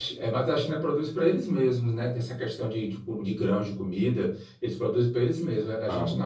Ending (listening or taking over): listening